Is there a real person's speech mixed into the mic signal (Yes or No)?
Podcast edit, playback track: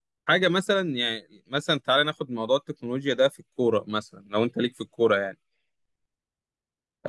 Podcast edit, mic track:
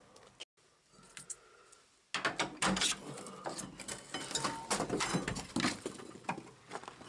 No